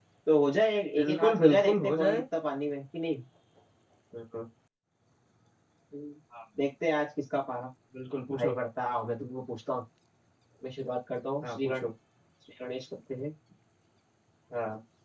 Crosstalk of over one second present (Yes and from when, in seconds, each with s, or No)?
Yes, from 1.0 s